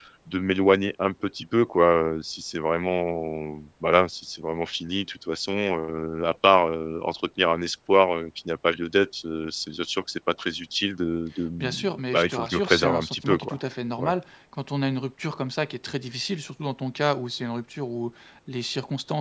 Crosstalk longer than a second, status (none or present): present